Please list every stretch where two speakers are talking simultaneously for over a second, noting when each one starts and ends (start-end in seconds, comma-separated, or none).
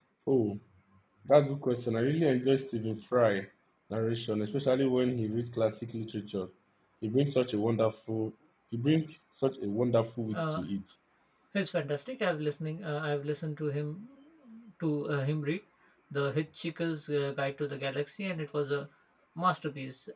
none